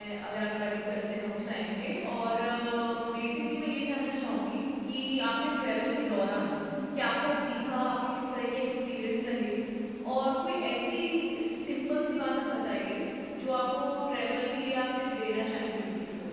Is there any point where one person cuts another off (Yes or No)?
No